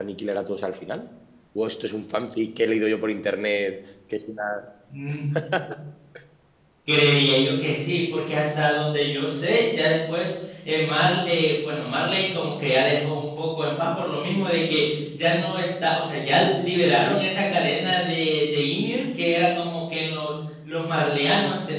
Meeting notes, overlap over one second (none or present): none